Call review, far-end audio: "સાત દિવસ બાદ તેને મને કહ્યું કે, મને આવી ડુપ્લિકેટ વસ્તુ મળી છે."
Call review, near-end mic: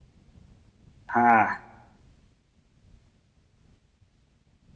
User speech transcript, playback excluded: હા

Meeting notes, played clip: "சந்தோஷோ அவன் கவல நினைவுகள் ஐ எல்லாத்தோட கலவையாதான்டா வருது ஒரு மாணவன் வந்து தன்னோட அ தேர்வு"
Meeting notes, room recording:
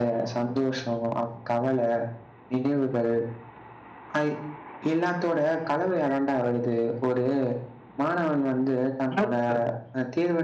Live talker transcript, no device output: ம்,

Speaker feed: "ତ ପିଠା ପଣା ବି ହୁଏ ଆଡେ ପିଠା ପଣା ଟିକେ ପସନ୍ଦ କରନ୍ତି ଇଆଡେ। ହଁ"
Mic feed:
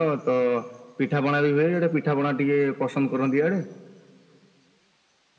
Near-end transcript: none

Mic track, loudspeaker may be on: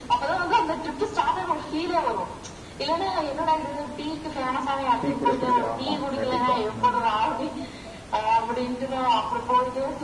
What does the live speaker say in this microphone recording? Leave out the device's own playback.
டீ கூட குடிக்கலா ஆமா கண்டிப்பா ம்

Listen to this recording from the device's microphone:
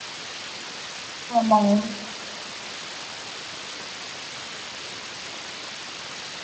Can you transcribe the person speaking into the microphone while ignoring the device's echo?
ஆமாங்க

